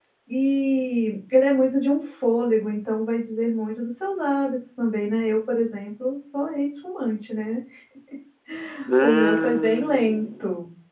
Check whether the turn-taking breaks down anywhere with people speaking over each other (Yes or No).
Yes